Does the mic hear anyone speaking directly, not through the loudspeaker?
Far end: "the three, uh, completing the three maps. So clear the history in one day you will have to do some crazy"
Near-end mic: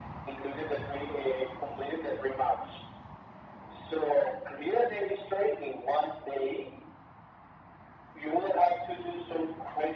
No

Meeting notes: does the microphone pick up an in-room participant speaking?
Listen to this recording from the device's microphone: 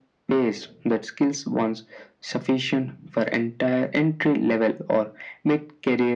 No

